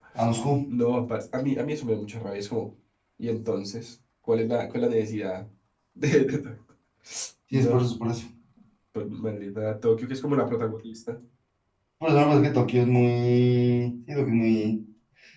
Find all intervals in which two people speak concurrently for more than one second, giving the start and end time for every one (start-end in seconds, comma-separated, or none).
none